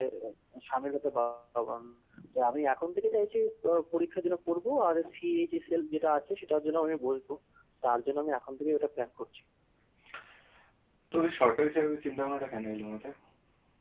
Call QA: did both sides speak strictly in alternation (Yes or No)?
Yes